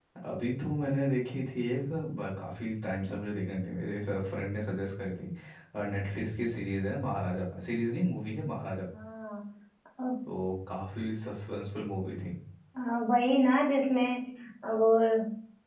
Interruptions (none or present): none